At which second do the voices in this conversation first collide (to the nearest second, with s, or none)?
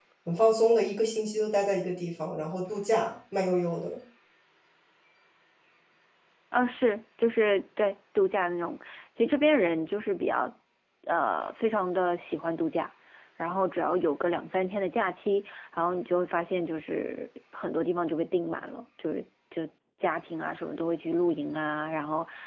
none